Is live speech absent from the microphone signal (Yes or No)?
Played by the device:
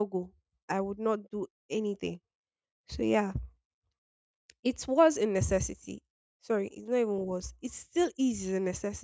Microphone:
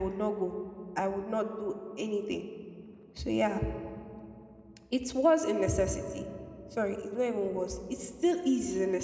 Yes